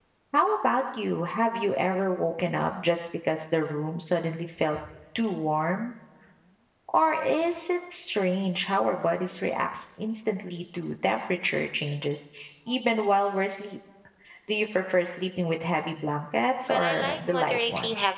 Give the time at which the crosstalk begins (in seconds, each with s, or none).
16.7 s